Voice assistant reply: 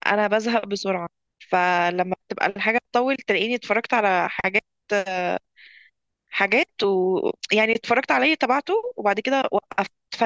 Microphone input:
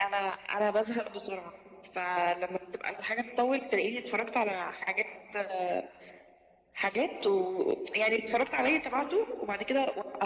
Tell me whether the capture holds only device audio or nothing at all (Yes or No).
Yes